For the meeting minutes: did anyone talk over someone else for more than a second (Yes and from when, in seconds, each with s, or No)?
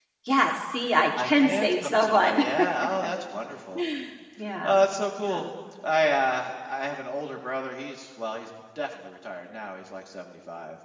Yes, from 1.2 s